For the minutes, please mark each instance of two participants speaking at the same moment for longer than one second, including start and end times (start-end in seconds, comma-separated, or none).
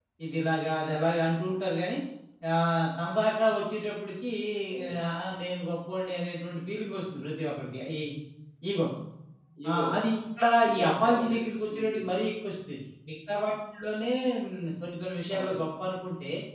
10.7-12.0